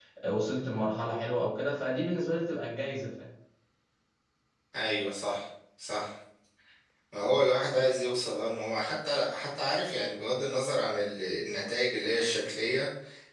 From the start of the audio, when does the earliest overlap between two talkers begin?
none

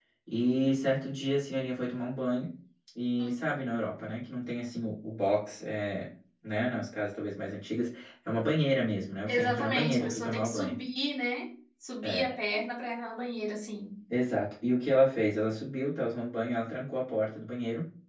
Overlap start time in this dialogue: 9 s

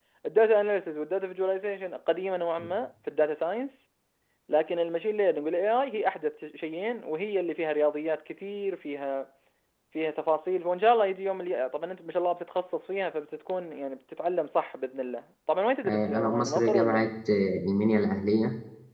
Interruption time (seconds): 16 s

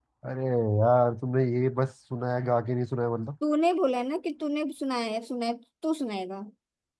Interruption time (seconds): none

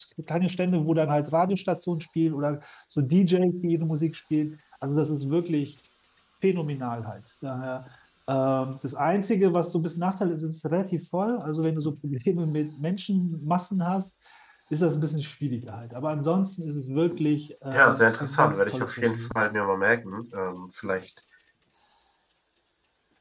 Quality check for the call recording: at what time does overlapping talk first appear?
18 s

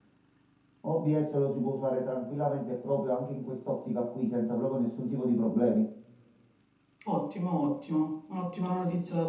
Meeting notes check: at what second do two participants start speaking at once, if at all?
none

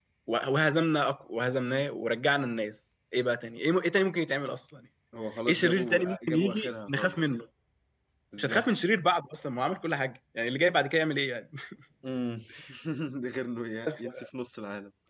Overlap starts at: 5 s

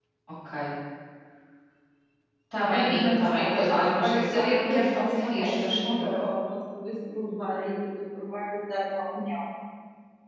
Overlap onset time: 3 s

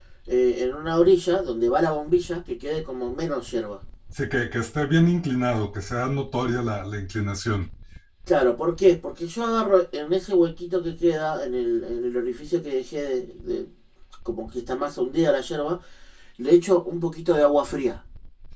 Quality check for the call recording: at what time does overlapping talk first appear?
none

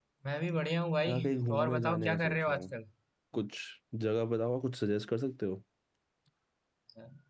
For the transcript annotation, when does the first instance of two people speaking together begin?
1 s

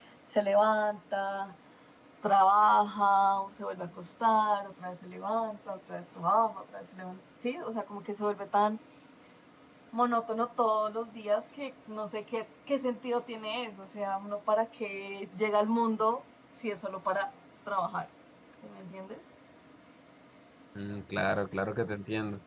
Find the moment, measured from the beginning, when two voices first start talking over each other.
none

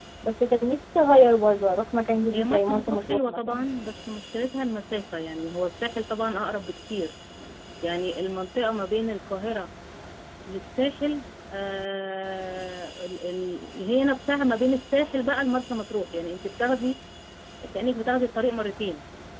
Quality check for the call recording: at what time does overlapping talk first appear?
2 s

